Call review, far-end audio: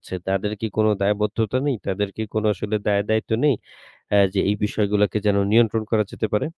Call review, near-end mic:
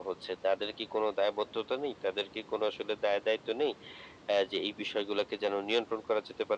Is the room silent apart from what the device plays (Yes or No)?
Yes